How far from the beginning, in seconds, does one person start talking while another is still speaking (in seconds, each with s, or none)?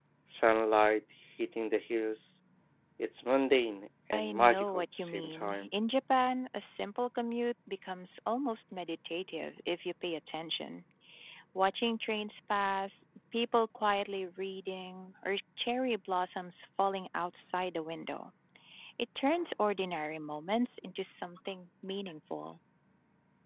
4.1 s